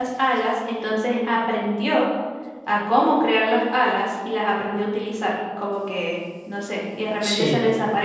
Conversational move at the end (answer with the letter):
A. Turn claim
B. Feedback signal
B